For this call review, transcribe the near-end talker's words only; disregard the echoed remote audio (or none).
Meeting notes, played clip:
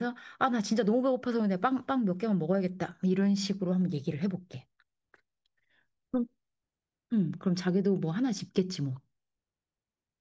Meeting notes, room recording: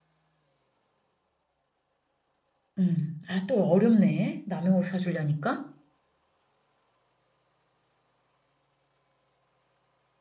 음. 아, 또 어렵네. 남의 옷 사주려니까.